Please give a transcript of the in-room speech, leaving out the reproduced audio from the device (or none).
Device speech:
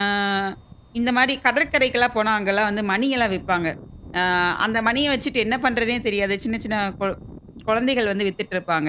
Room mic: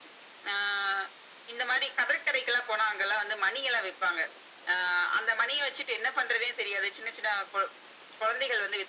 none